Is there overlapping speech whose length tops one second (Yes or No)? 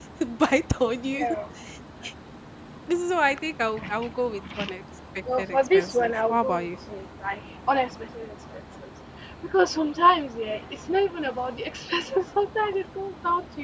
Yes